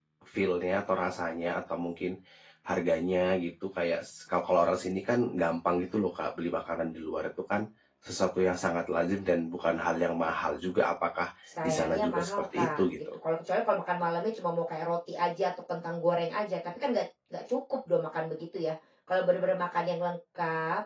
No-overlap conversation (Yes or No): No